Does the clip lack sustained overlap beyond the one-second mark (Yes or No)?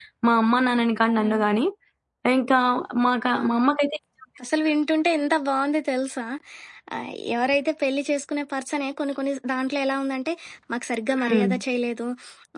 Yes